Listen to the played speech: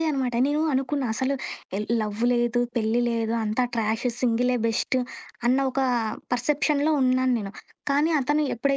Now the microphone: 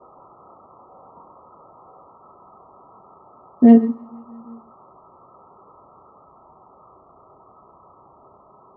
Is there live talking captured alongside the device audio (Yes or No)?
Yes